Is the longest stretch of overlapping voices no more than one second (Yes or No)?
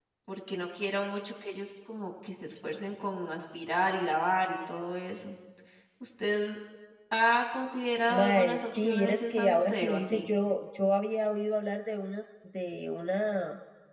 No